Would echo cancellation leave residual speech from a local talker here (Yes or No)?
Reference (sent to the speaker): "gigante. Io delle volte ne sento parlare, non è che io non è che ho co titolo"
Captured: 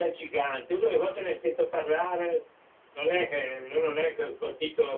No